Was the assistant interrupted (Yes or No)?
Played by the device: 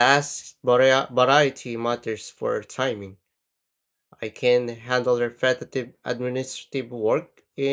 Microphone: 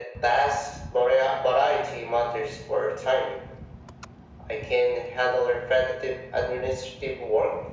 No